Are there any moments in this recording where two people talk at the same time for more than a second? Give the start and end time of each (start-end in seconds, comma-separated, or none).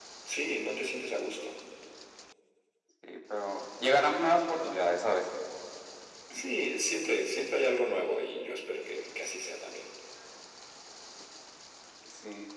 none